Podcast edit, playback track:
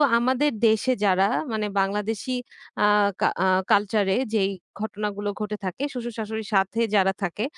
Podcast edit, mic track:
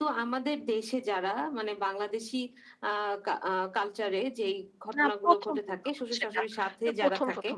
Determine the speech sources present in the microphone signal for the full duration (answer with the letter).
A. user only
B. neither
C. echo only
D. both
D